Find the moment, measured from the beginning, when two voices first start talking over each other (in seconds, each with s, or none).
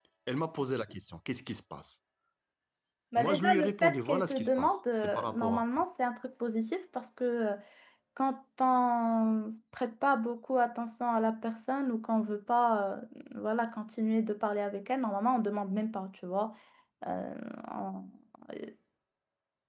3.2 s